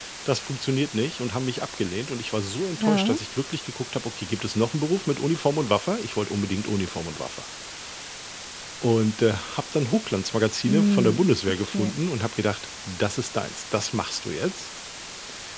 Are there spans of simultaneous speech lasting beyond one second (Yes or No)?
Yes